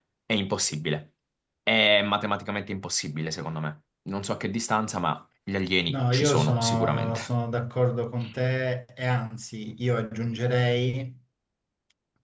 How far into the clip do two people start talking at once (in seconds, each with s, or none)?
5.9 s